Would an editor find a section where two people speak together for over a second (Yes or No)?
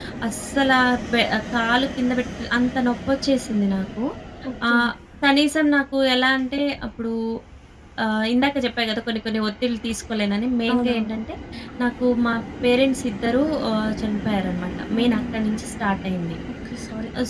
No